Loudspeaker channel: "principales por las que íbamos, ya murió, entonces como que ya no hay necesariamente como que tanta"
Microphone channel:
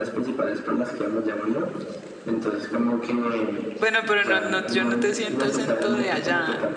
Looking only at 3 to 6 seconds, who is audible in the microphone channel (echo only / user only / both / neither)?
both